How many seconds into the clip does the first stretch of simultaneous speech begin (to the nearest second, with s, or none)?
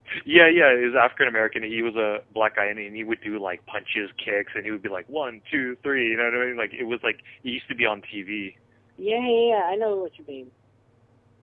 none